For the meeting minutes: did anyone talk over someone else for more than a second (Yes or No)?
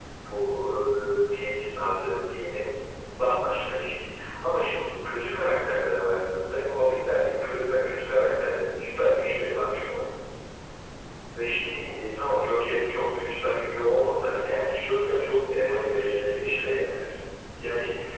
Yes